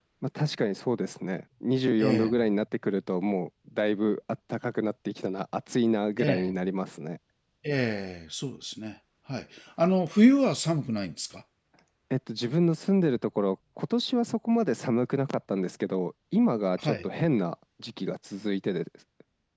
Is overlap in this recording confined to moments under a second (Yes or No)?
Yes